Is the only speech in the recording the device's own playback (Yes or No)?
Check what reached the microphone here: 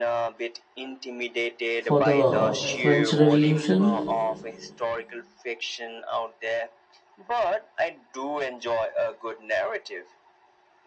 No